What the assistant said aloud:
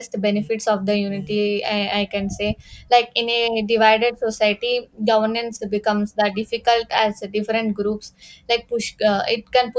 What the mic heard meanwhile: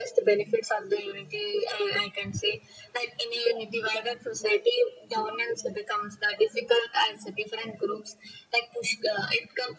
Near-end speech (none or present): none